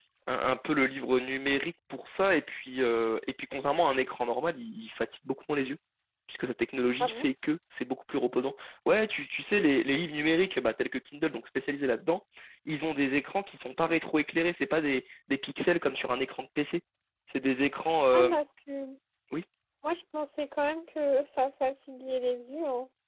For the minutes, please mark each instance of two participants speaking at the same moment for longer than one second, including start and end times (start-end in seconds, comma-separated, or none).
none